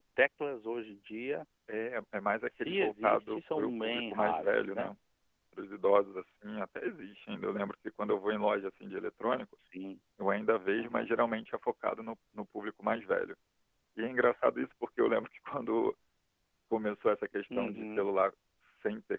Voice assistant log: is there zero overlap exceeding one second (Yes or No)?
No